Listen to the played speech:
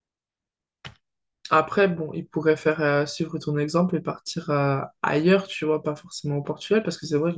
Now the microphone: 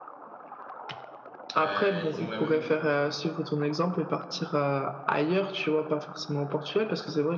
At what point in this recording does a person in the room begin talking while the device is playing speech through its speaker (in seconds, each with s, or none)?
1.5 s